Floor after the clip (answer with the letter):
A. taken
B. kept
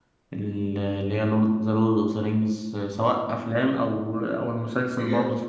A